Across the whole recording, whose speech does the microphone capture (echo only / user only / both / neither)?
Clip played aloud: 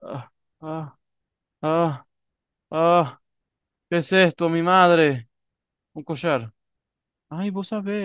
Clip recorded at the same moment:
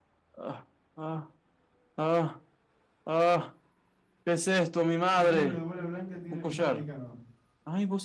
both